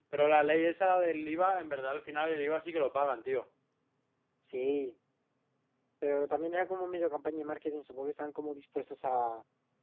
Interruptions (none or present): none